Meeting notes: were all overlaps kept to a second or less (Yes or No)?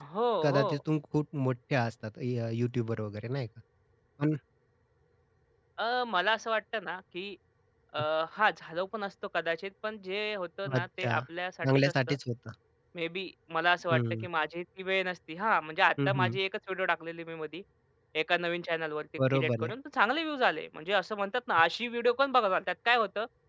Yes